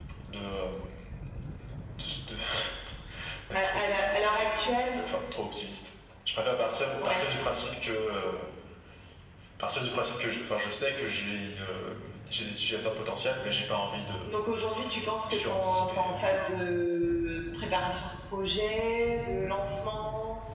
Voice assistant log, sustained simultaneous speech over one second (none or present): present